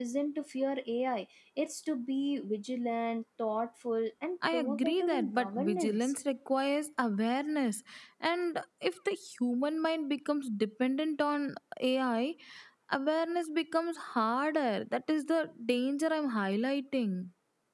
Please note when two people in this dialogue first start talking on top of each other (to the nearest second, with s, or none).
4 s